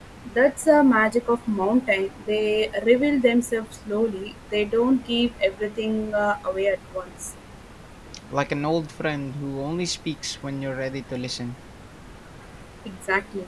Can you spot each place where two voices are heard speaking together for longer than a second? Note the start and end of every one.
none

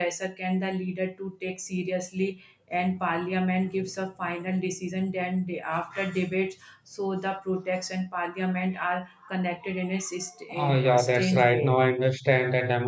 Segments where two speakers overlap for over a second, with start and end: 10.5-11.8

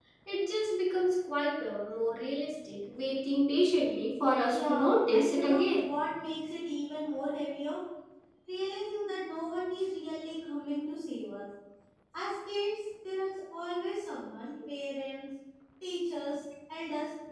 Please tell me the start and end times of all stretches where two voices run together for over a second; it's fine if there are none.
4.5-5.8

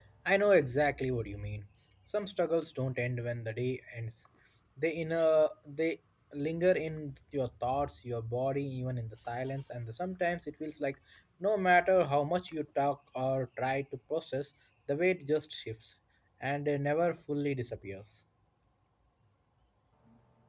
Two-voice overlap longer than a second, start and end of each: none

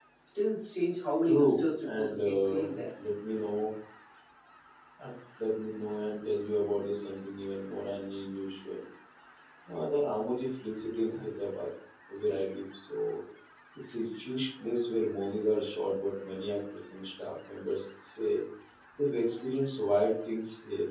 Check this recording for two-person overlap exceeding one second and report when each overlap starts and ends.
1.2-2.7

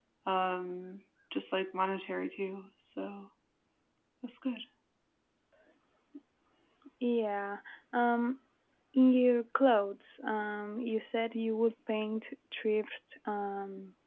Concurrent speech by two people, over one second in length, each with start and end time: none

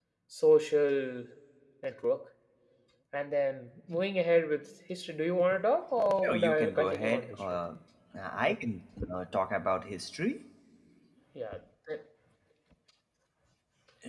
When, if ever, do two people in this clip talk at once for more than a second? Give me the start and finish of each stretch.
6.2-7.6

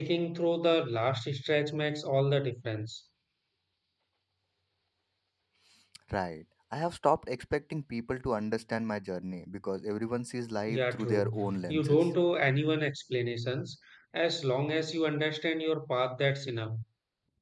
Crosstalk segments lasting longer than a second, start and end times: 10.7-12.1

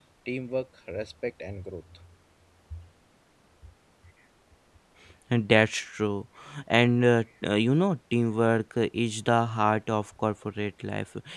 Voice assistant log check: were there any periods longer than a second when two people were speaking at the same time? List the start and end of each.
none

